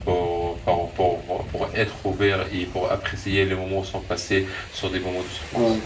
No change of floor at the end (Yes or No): No